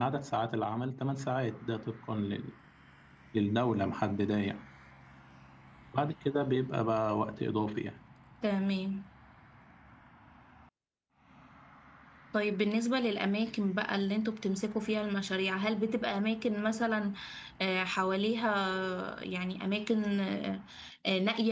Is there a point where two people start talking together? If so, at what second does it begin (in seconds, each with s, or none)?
none